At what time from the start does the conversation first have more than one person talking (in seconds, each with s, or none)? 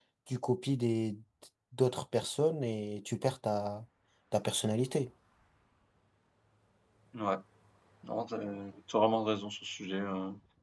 none